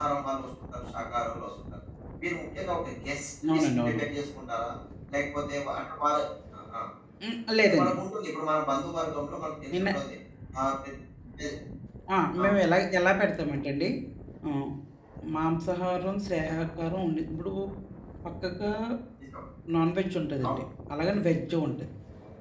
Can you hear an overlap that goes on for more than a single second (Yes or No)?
No